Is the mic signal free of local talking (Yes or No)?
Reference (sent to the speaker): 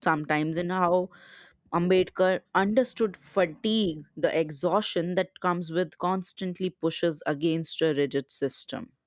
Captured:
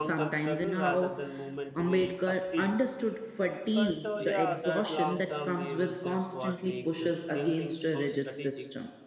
No